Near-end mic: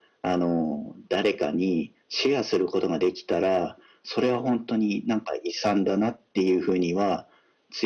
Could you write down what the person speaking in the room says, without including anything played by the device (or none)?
none